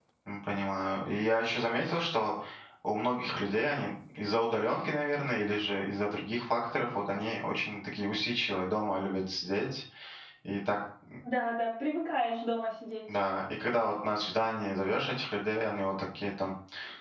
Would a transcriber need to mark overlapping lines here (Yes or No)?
No